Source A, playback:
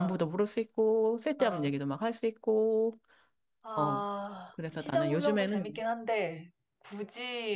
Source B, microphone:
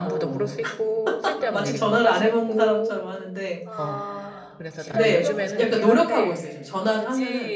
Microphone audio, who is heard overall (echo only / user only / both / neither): both